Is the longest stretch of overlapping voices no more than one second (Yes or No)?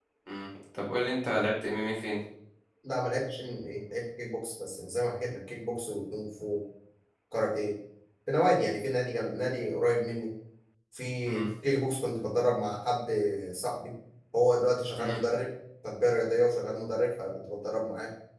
Yes